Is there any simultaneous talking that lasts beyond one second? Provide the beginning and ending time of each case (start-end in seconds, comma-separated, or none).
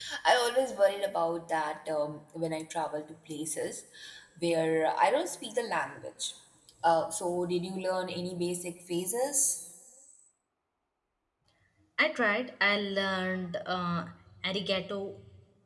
none